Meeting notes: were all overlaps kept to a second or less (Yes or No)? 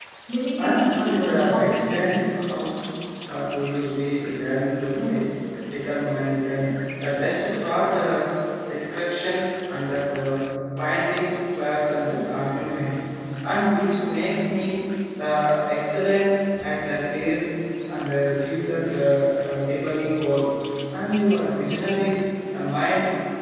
No